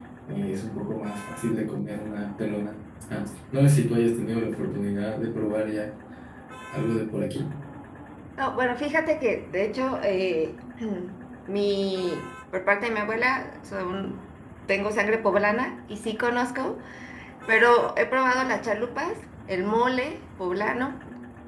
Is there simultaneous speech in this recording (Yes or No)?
No